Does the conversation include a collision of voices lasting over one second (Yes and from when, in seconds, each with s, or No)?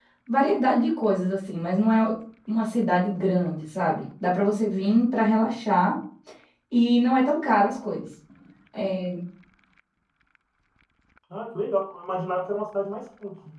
No